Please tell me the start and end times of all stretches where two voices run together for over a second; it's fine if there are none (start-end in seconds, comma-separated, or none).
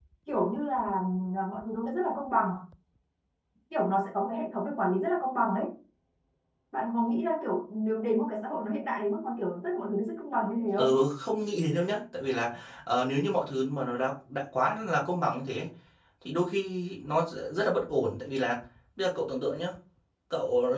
none